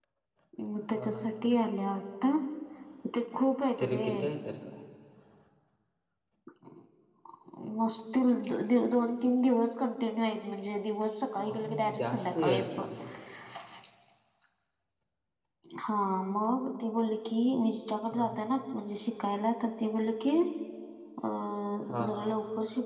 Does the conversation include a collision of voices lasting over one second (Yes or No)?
Yes